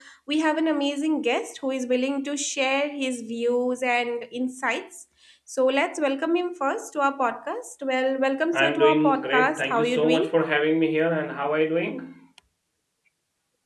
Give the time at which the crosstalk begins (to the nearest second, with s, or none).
9 s